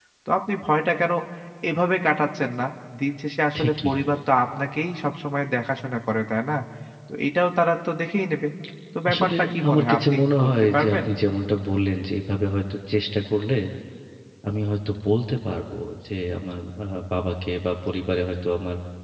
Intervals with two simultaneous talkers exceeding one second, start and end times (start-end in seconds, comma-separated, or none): 9.1-11.0